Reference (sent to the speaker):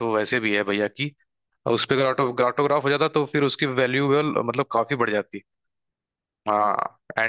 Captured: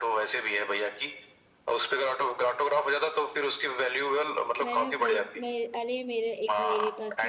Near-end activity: present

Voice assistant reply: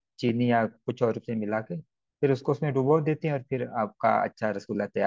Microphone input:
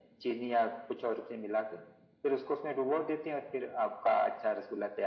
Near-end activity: none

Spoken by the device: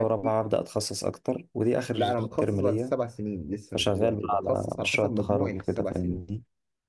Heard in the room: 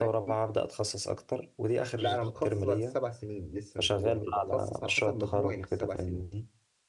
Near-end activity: none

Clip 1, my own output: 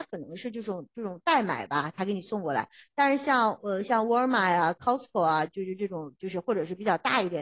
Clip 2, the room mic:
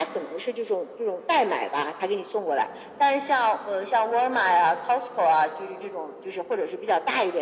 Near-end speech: none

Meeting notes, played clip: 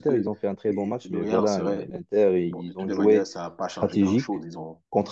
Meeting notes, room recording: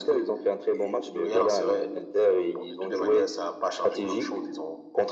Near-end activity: none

